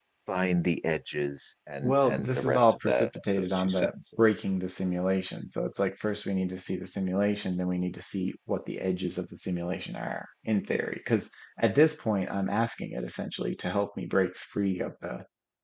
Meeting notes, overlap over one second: present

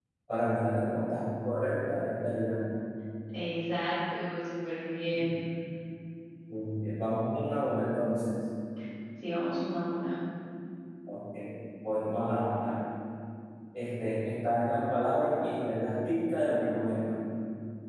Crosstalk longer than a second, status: none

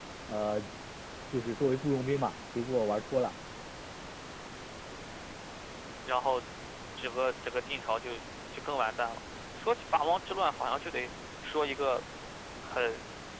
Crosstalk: none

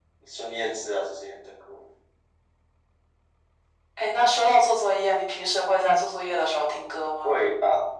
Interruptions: none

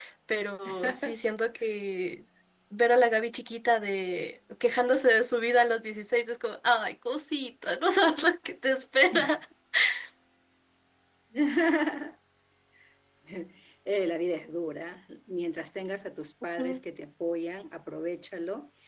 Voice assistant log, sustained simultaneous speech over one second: none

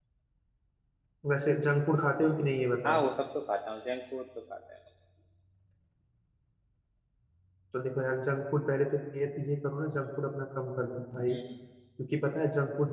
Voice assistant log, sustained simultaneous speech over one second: none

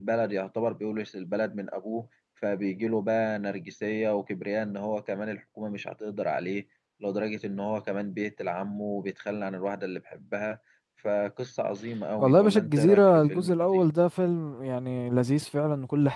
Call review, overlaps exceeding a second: present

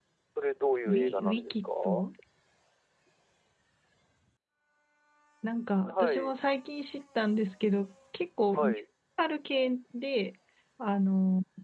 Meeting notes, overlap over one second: present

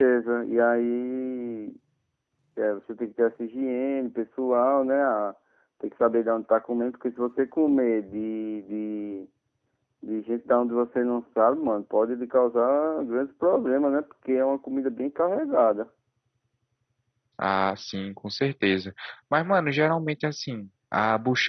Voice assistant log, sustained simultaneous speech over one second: none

